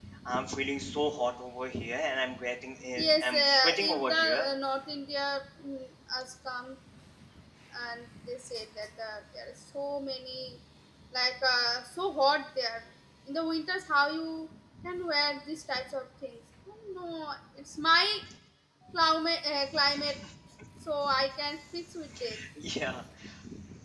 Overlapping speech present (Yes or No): Yes